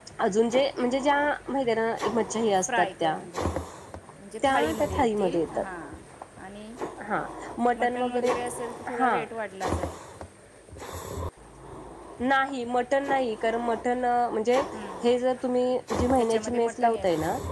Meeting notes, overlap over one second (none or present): present